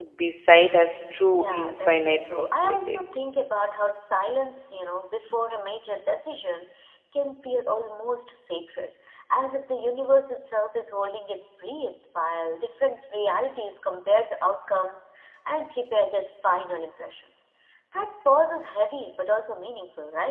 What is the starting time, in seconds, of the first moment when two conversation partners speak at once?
1.3 s

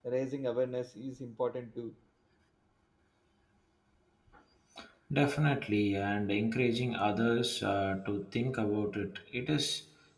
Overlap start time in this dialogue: none

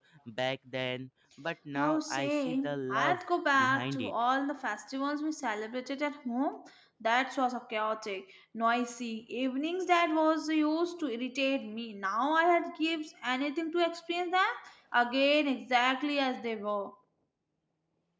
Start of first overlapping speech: 1.8 s

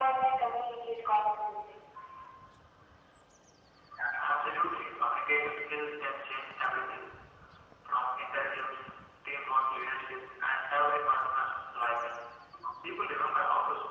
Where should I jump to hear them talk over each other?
none

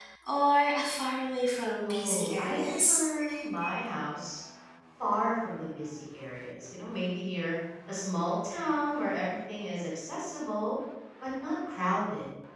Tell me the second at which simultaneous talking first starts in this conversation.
1.8 s

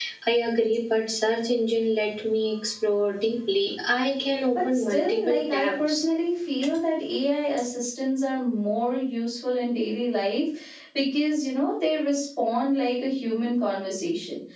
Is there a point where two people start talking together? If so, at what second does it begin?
4.5 s

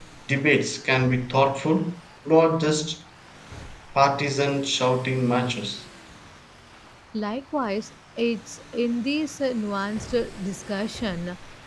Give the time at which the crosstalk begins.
none

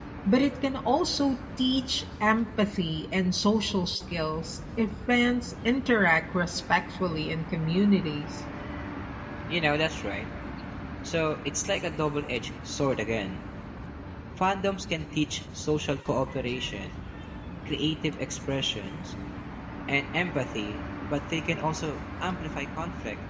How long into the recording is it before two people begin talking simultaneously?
none

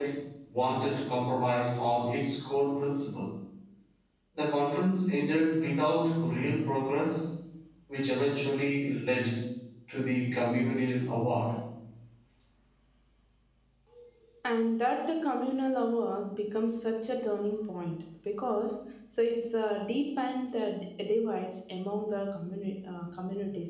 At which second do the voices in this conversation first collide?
none

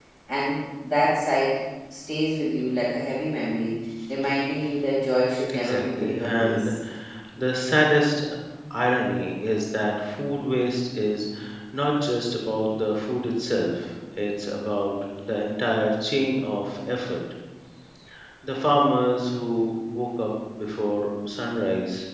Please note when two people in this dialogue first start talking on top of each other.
5.5 s

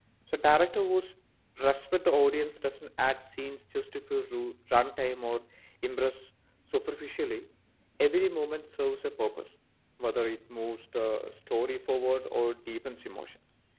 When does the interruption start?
none

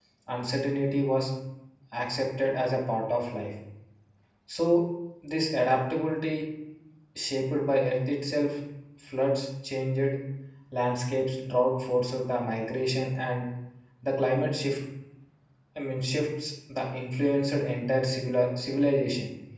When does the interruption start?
none

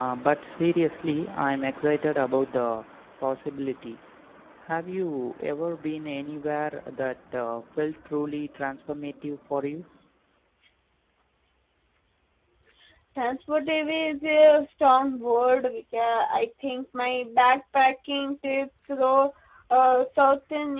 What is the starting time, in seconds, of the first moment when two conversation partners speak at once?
none

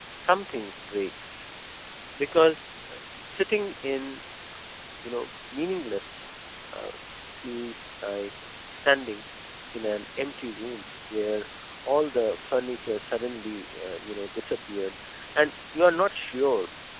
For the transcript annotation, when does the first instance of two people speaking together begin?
none

